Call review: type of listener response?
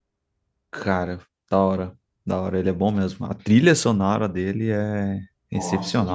taking over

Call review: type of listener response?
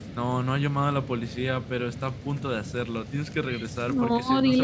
taking over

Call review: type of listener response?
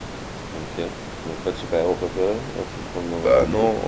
taking over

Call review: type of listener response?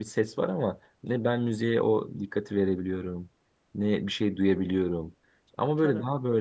listening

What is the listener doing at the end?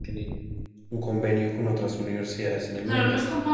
taking over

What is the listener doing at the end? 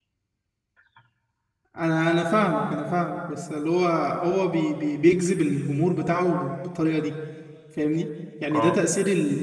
listening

